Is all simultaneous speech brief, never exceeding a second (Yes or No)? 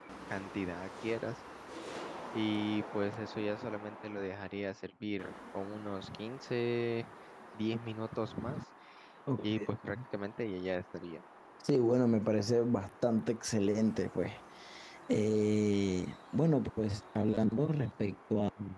Yes